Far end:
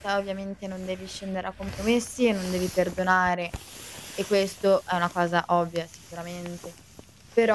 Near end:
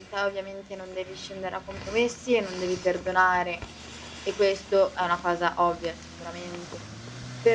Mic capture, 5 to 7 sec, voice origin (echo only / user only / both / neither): echo only